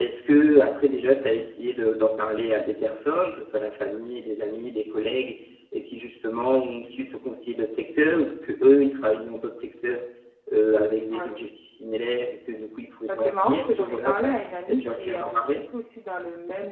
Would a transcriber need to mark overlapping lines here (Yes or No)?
Yes